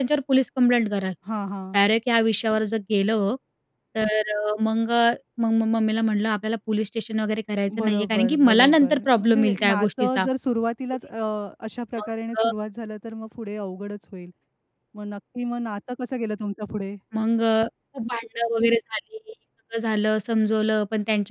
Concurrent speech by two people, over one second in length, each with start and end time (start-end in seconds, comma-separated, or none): 7.8-10.2